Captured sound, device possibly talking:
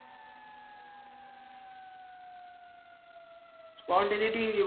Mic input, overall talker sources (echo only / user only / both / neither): user only